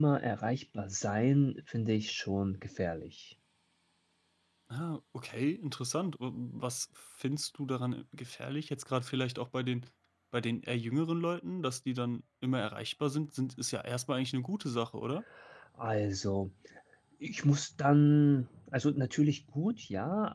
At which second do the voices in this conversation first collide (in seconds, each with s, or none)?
none